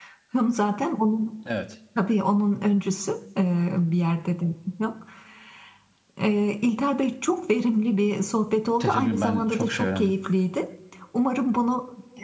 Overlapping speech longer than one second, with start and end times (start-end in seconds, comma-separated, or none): 8.8-10.1